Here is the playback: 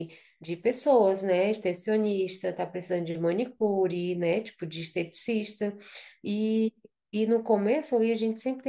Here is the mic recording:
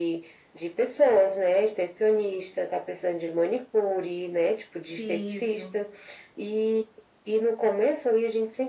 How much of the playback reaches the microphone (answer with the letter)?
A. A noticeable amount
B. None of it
A